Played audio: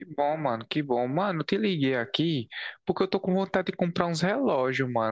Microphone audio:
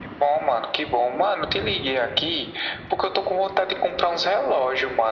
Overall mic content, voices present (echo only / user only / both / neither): echo only